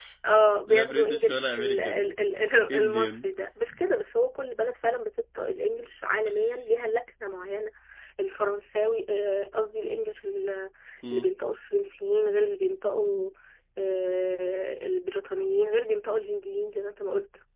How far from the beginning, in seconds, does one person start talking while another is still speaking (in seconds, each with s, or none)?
0.7 s